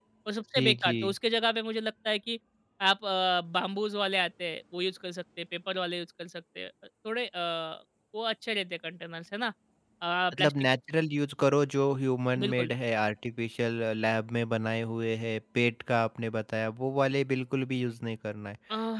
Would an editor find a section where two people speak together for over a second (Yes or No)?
No